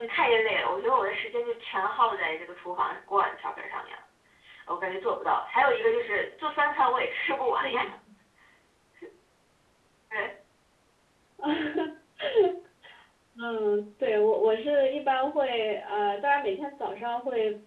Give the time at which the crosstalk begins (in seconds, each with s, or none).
none